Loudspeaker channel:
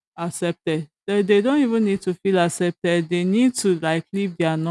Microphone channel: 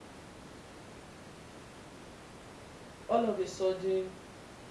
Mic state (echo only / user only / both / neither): user only